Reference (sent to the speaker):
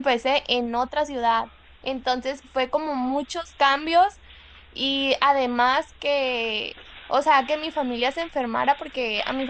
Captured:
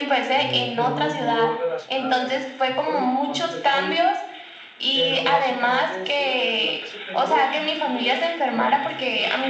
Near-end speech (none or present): present